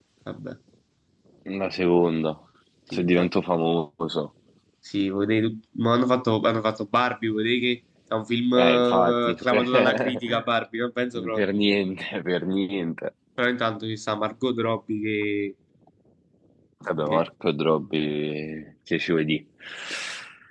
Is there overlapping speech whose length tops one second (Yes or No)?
Yes